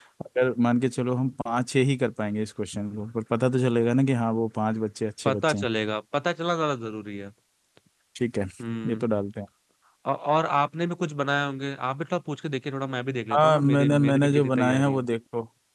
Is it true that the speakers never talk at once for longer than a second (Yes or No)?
No